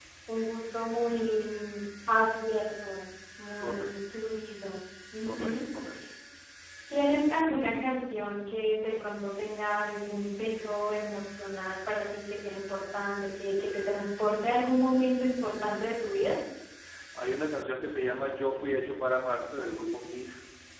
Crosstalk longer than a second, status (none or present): none